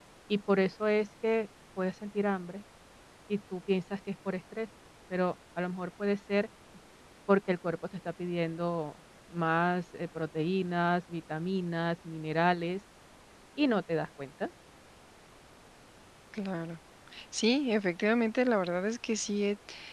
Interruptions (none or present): none